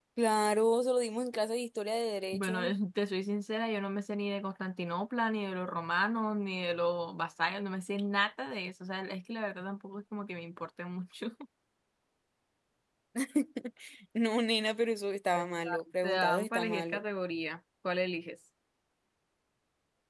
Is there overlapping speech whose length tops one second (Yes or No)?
Yes